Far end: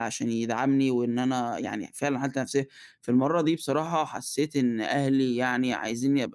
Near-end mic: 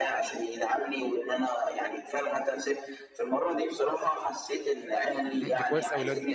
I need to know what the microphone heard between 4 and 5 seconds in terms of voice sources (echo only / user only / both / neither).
echo only